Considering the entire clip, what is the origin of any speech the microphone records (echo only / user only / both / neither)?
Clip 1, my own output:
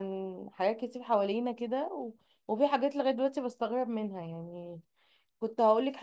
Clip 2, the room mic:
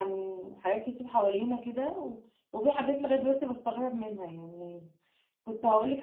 echo only